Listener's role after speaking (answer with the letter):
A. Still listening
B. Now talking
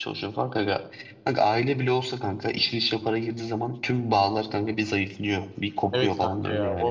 B